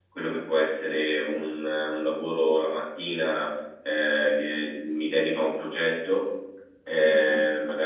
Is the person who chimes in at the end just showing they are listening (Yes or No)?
Yes